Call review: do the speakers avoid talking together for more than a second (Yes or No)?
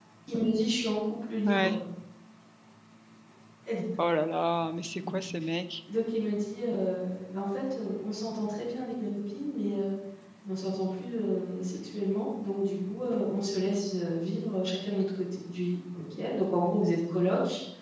Yes